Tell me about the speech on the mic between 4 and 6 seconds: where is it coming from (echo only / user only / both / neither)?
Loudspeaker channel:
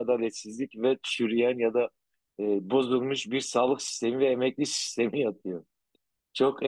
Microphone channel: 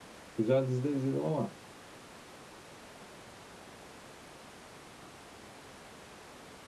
neither